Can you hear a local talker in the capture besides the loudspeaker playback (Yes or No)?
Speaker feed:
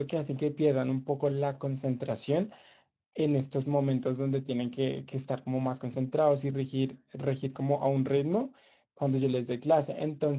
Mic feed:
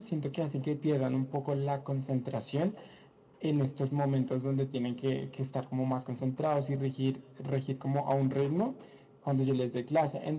No